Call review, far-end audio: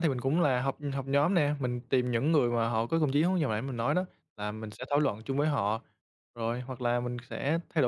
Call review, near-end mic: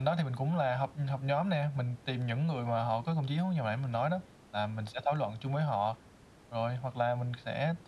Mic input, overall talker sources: echo only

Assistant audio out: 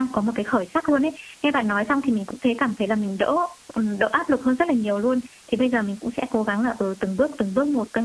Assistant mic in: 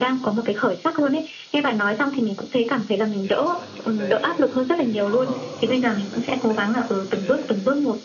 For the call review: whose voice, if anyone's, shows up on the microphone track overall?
both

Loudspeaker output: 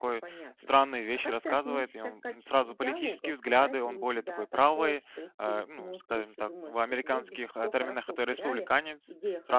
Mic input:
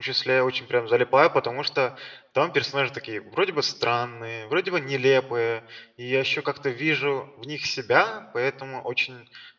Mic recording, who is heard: user only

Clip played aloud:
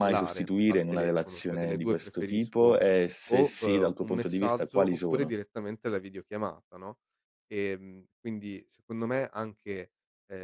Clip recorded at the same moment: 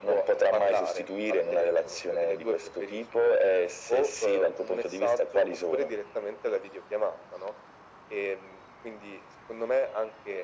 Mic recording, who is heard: echo only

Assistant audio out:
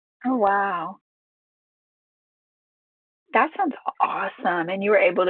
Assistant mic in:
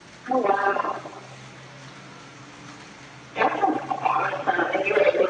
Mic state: echo only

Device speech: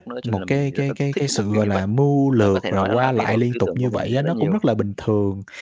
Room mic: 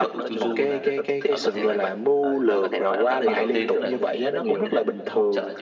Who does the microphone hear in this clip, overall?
both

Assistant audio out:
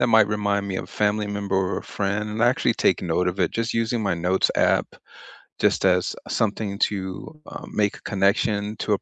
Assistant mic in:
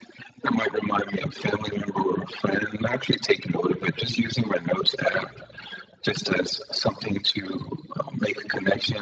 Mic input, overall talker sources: echo only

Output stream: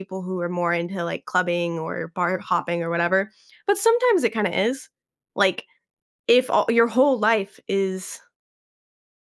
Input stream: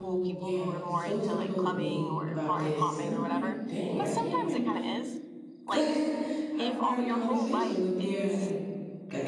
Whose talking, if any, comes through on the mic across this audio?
both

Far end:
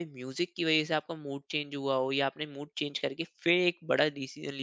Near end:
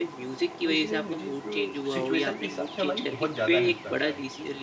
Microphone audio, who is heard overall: both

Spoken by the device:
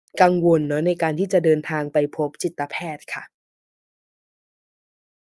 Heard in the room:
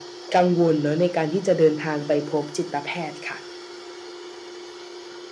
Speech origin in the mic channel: echo only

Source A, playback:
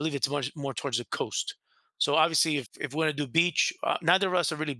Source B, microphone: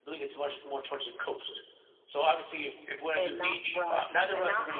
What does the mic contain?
both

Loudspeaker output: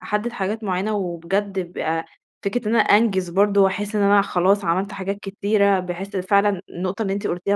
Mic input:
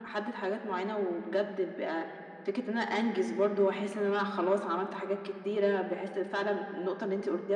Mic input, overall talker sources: echo only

